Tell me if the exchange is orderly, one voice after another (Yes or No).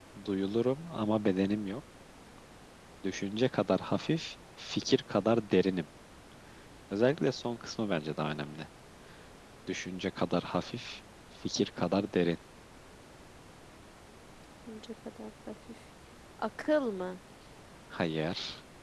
Yes